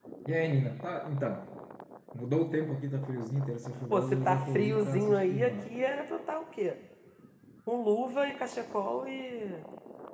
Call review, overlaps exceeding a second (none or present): present